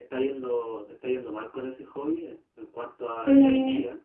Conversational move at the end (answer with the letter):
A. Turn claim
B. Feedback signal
A